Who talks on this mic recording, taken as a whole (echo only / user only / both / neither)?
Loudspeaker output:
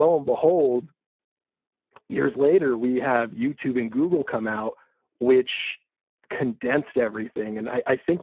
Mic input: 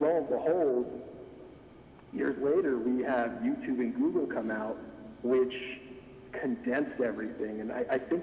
echo only